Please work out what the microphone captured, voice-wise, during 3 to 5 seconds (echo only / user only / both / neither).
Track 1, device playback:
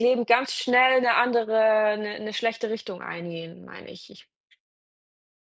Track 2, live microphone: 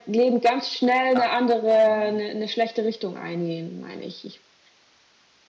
echo only